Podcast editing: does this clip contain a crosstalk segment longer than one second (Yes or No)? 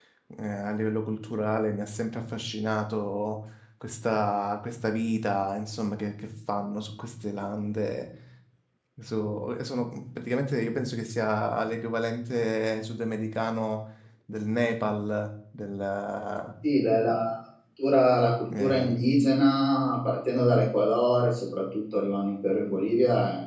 No